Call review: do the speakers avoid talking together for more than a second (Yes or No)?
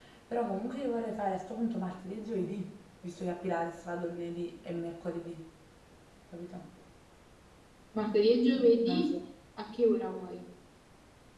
Yes